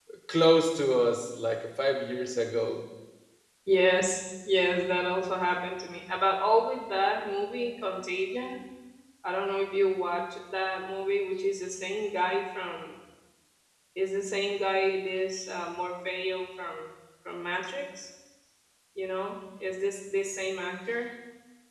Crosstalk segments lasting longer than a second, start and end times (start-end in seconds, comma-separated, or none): none